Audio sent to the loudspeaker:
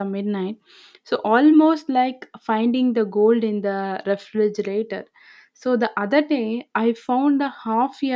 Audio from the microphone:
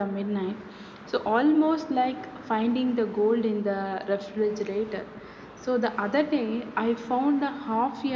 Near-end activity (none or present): none